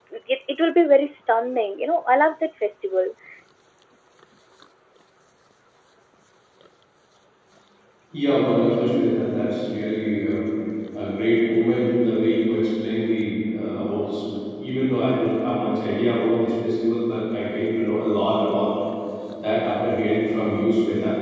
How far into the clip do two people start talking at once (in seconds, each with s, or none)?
none